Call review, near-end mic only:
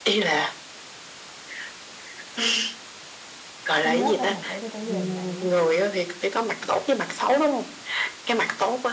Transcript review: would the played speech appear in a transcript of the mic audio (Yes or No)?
Yes